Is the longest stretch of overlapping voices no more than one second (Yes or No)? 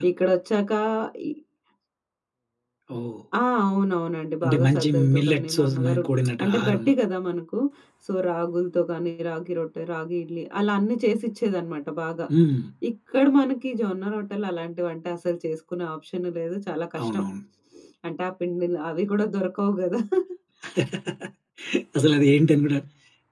No